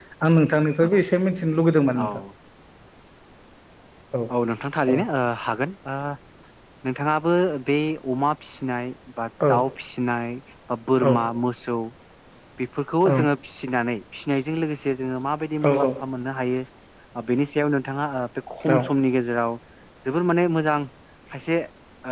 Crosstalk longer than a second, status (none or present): none